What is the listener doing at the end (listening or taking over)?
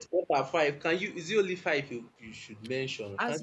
taking over